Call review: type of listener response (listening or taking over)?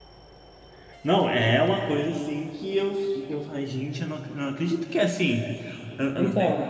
listening